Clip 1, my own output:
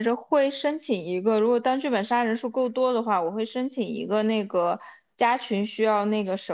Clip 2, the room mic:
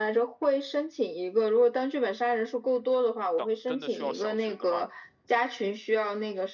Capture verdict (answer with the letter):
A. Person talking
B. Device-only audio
A